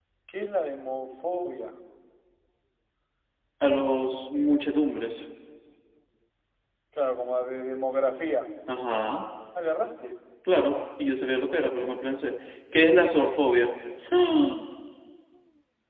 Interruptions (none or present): none